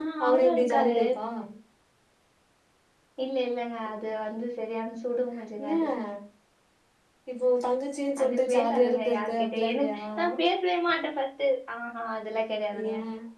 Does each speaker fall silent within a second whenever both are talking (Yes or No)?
No